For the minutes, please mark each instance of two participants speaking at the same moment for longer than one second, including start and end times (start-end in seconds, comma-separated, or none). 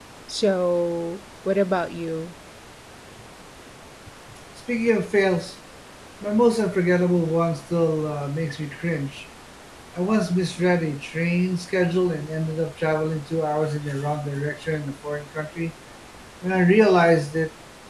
none